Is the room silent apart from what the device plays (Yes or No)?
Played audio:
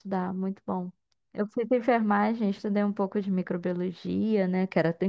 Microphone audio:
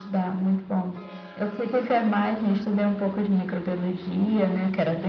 Yes